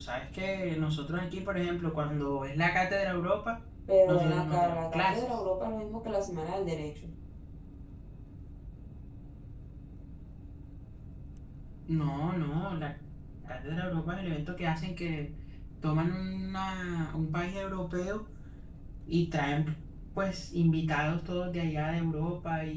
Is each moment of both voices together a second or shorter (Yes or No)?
No